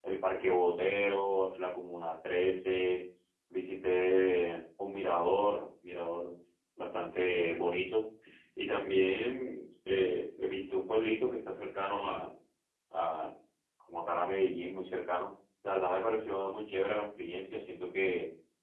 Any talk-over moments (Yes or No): No